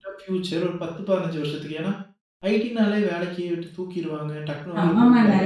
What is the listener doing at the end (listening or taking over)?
taking over